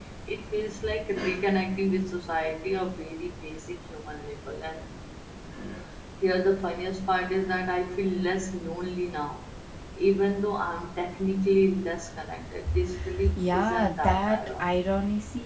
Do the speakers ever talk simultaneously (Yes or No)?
Yes